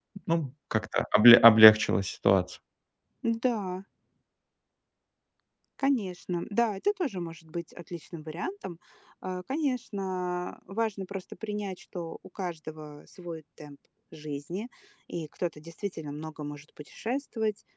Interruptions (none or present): none